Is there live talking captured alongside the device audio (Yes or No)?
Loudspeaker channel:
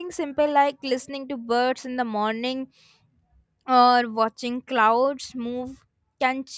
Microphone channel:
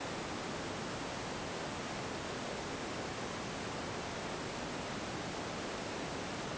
No